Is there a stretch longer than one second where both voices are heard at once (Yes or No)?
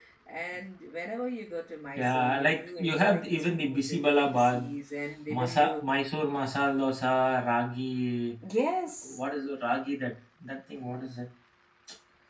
Yes